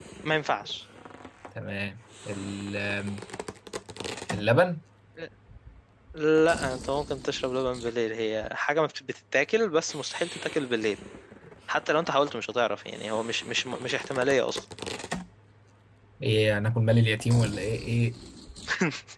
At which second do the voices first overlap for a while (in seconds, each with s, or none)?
none